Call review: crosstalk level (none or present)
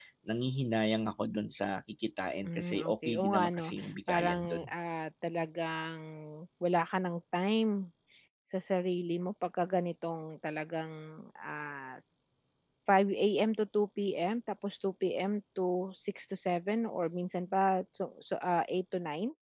present